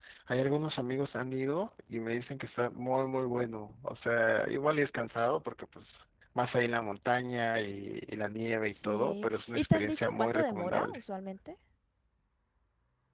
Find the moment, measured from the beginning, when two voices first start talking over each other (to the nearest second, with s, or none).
9 s